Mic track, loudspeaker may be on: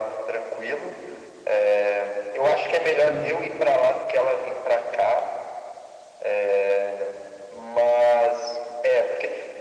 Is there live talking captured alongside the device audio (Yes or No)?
Yes